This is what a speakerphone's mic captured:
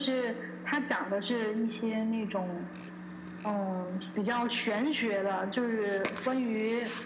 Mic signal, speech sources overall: echo only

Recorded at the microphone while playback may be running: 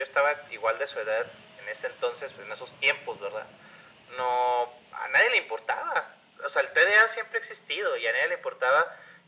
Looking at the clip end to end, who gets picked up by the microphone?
echo only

